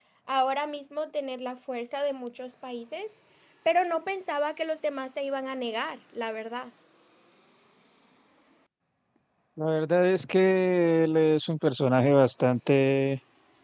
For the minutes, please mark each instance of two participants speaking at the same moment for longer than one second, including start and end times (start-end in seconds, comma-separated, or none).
none